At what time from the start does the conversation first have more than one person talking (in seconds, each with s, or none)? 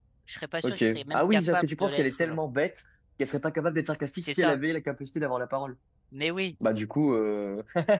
0.6 s